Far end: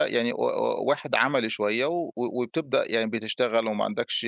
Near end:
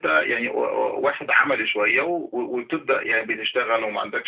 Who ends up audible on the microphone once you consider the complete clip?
echo only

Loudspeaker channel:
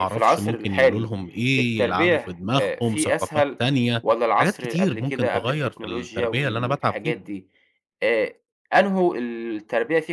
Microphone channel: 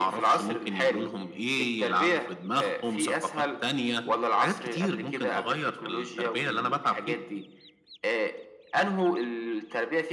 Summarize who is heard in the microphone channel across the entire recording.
echo only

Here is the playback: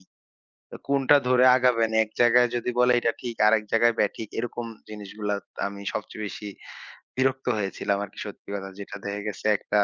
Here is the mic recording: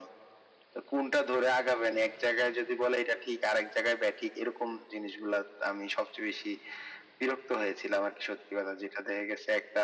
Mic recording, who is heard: echo only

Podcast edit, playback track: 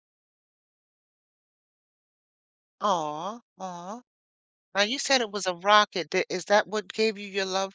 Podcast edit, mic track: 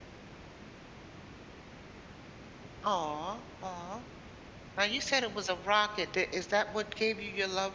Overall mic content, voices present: echo only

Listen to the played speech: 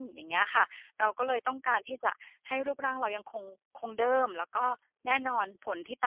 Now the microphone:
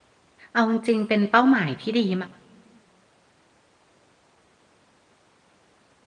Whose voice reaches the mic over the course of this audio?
user only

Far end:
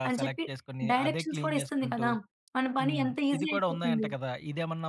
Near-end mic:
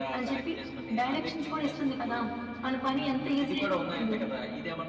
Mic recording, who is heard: echo only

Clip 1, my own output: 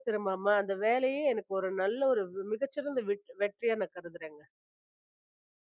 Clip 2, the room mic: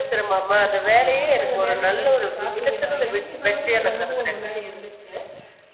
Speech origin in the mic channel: both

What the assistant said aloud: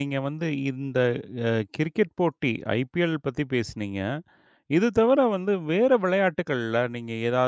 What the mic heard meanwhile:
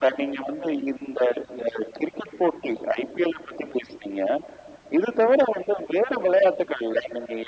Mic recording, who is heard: echo only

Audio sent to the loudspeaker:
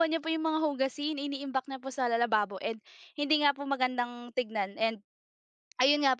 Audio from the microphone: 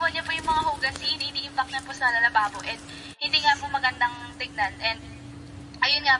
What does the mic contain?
echo only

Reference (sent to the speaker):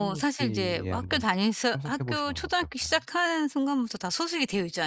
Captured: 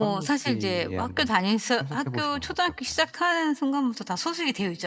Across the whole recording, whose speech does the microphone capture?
echo only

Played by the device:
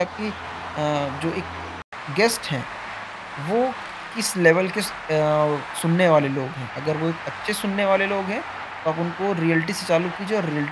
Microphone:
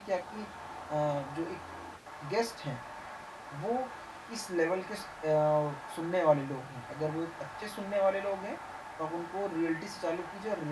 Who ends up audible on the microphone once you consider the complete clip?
echo only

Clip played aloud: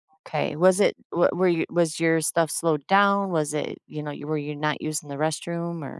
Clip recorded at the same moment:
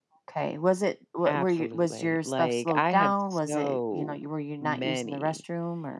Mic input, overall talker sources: both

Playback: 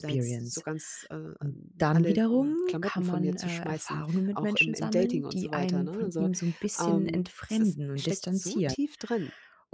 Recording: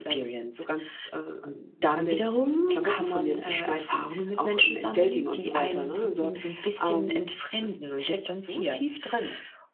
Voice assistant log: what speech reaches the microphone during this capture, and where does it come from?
echo only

